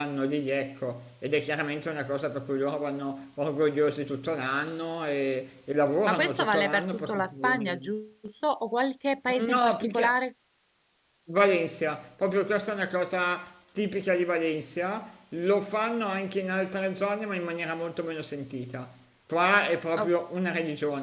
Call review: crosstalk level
present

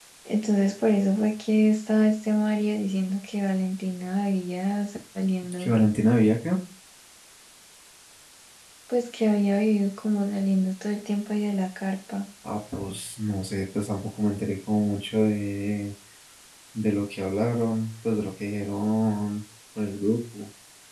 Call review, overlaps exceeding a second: none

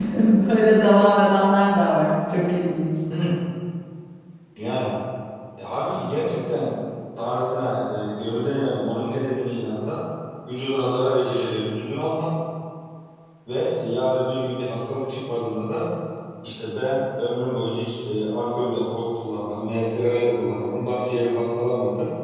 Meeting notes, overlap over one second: none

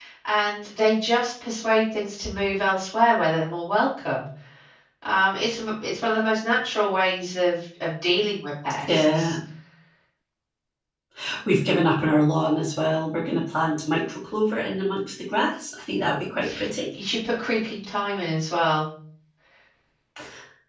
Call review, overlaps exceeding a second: none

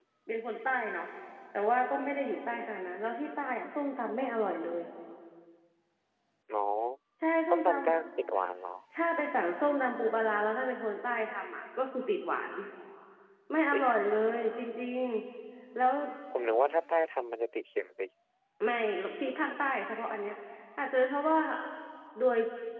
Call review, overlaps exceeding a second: none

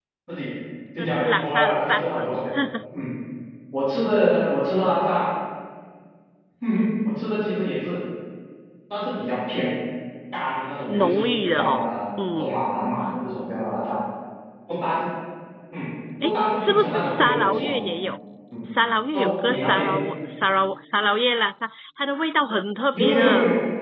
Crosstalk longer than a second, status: present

